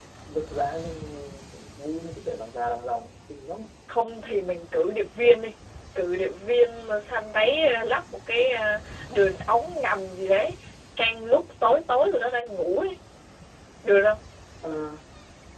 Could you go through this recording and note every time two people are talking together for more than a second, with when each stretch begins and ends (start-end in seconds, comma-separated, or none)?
none